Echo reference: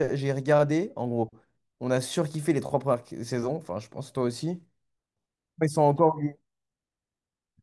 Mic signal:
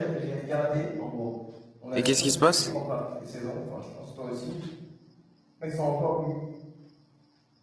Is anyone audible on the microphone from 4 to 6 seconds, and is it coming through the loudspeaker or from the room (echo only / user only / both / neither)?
echo only